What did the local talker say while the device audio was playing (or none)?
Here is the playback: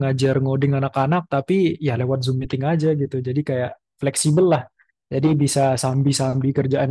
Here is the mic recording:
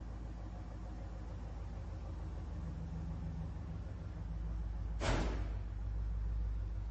none